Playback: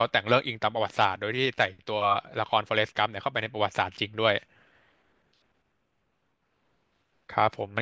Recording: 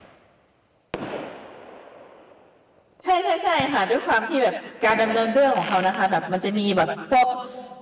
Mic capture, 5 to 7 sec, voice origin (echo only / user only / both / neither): user only